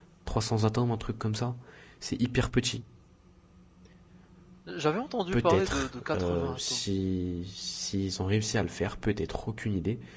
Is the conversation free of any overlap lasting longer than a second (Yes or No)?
No